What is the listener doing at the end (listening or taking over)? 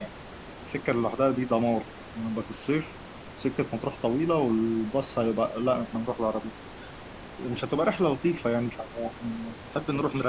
taking over